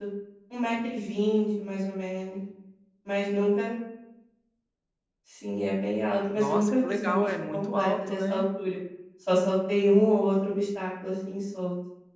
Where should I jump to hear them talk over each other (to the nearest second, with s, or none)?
6 s